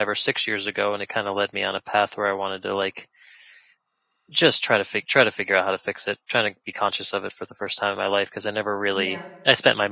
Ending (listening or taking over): listening